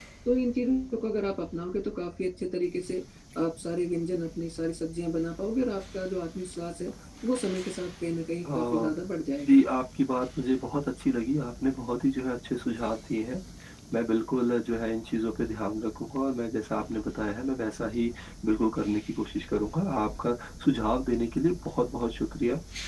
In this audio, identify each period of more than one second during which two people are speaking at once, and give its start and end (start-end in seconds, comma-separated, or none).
none